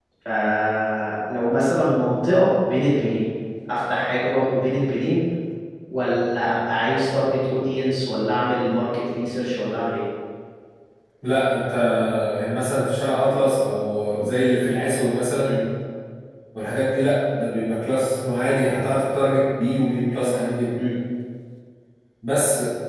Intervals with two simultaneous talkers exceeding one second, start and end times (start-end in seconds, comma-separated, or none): none